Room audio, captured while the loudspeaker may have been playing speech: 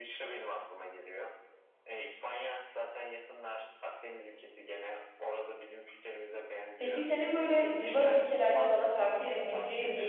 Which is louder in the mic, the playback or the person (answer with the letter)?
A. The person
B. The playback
A